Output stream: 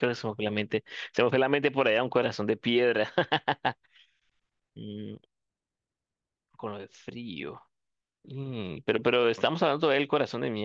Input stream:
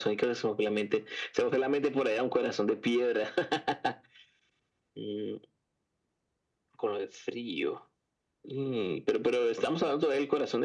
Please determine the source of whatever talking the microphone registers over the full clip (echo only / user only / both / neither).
echo only